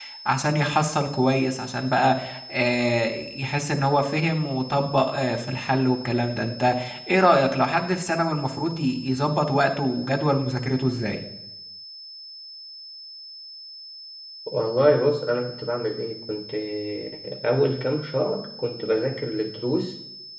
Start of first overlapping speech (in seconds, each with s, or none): none